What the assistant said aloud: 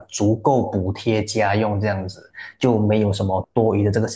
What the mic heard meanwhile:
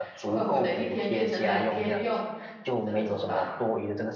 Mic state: both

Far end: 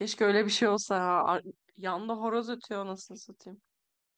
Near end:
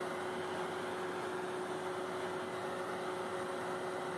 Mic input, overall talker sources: neither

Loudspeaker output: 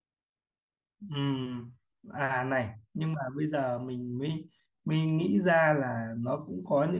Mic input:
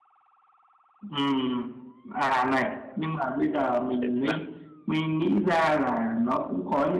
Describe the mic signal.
both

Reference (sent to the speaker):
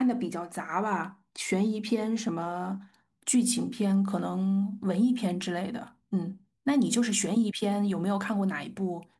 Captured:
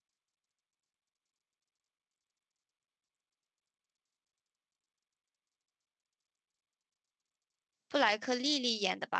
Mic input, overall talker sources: user only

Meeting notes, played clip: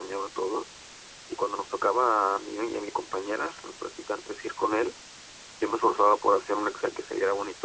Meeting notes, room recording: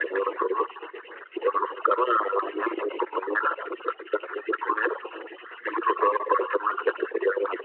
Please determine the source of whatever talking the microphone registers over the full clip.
echo only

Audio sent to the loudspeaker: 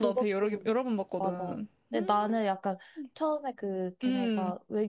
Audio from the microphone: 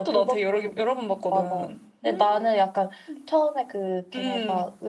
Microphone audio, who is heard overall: echo only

